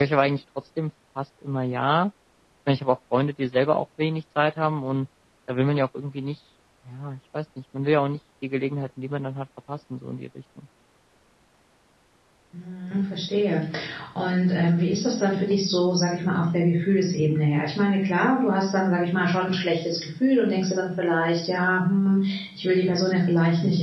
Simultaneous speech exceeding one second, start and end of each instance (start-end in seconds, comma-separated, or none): none